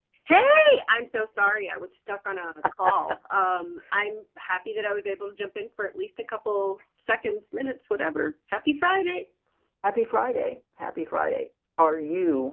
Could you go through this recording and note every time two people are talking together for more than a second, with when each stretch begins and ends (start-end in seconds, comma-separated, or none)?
none